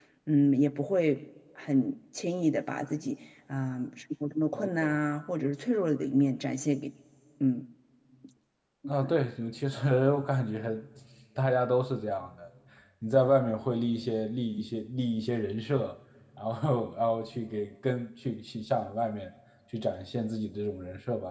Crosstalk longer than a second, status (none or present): none